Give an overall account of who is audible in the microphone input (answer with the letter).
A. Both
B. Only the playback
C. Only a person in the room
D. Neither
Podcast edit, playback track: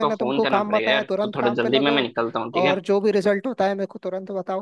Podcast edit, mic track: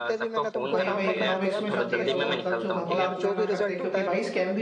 A